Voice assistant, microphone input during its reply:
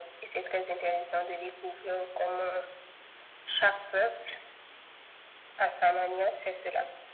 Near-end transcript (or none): none